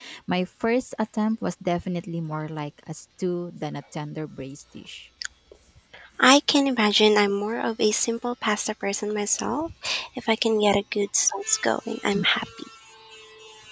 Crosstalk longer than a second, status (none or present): none